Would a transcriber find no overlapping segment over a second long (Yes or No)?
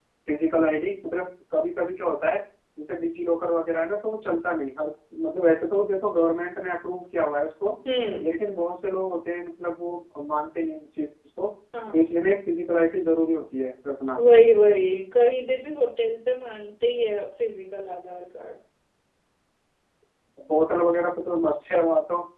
Yes